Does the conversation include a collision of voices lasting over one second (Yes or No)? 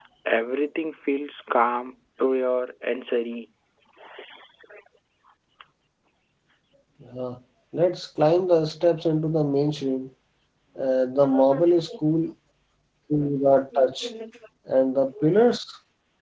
No